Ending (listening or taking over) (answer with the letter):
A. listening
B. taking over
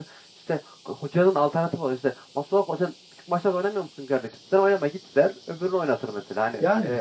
A